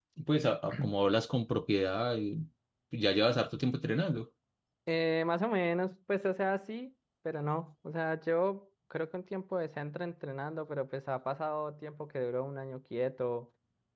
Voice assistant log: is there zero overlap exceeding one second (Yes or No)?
Yes